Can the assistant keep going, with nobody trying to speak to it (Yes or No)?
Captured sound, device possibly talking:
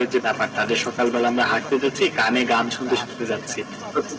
No